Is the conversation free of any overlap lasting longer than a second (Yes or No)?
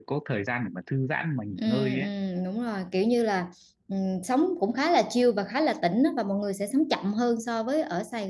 Yes